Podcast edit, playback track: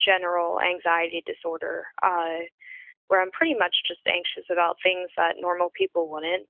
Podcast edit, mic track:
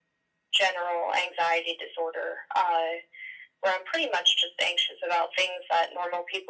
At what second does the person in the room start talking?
none

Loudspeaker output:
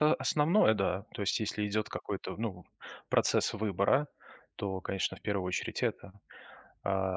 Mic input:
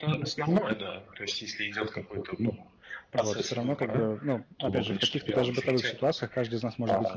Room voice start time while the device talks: 3 s

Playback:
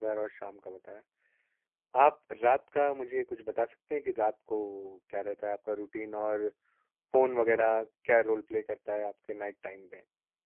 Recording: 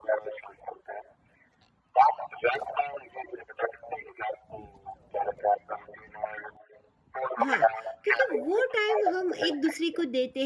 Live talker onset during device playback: 7 s

